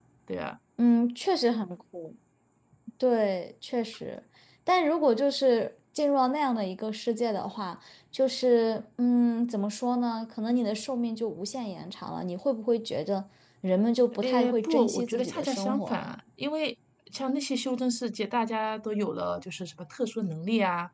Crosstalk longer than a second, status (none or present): present